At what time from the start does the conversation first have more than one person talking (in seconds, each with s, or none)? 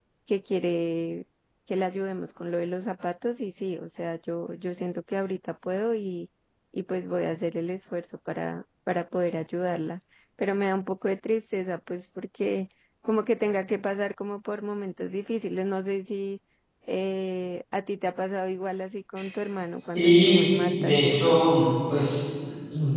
19.8 s